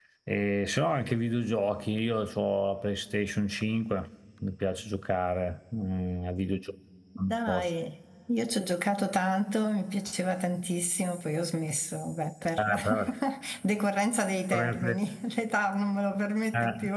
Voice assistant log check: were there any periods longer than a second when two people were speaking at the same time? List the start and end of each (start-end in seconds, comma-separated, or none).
none